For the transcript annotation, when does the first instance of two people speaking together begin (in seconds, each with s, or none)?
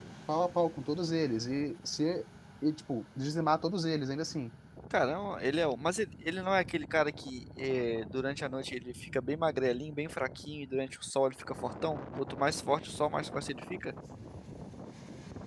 none